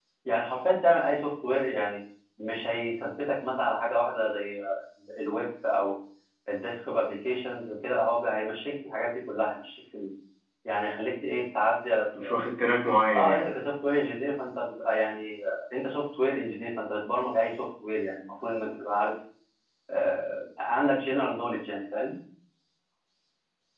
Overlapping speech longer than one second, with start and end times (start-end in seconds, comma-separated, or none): none